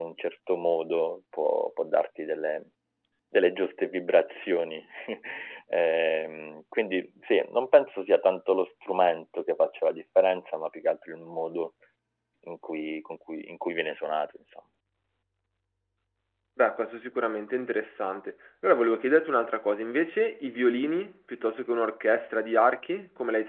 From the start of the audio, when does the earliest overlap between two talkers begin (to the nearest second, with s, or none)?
none